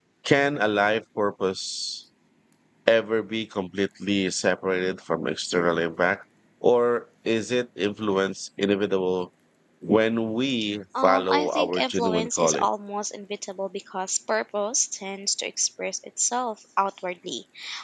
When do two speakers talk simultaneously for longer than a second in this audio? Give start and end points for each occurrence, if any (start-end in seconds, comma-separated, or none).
11.0-12.6